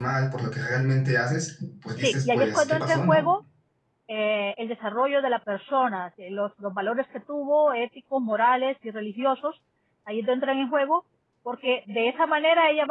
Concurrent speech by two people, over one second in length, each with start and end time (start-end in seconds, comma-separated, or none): 2.0-3.2